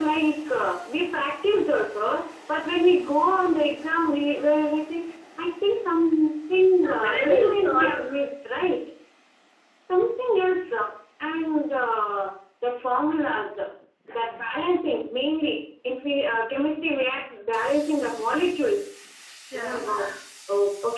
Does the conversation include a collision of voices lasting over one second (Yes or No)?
Yes